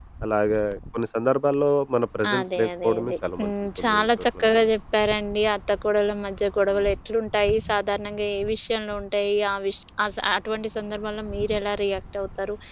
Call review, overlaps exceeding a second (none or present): present